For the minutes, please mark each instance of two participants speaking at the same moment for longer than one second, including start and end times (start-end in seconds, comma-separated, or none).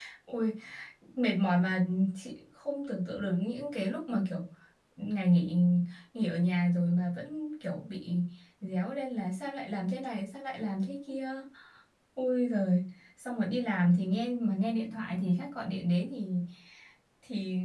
none